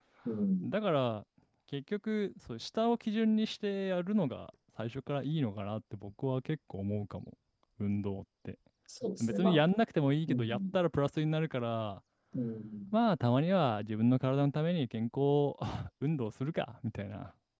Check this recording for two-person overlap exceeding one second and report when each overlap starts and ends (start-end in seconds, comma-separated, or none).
none